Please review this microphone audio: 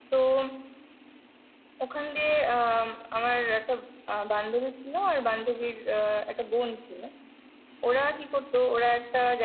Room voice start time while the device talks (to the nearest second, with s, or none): none